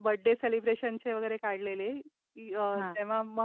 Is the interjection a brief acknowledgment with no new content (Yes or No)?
Yes